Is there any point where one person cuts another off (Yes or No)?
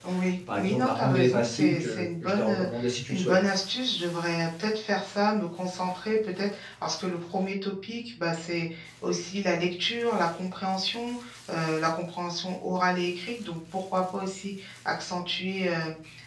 Yes